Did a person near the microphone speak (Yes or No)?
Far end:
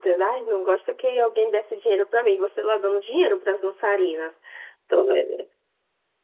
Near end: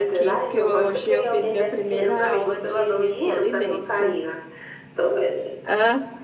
Yes